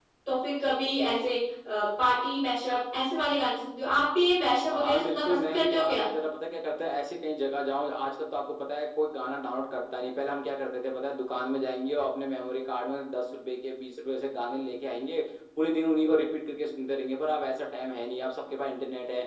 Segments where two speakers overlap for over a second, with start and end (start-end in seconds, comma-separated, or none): 4.7-6.0